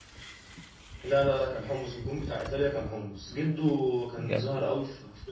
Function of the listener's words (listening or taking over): listening